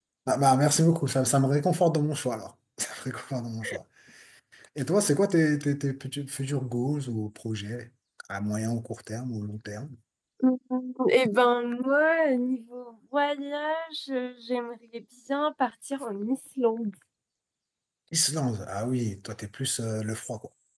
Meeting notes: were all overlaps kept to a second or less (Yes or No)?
Yes